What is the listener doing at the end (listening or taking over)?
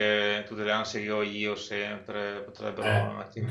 taking over